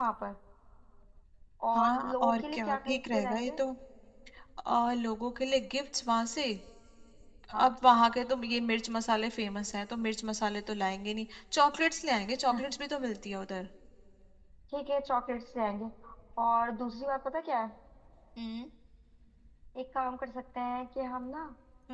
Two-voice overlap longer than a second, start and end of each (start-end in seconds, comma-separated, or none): 1.7-3.5